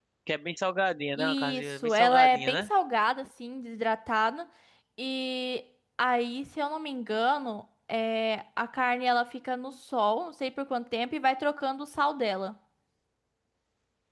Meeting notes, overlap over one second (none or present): present